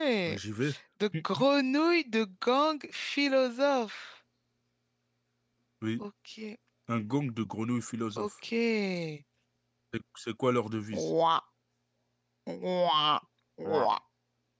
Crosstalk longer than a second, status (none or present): none